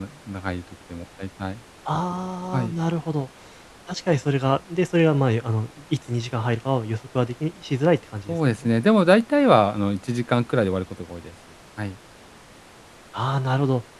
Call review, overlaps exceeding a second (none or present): none